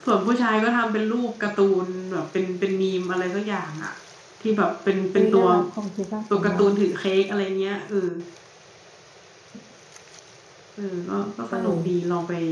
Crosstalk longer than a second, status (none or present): none